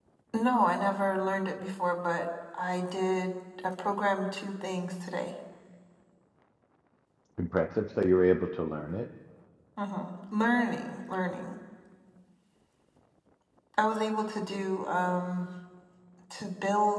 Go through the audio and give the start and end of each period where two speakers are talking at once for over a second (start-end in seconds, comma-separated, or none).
none